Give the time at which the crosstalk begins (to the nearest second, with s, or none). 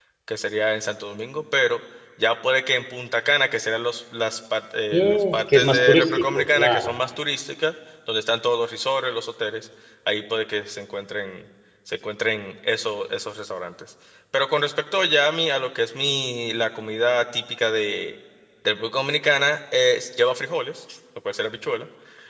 5 s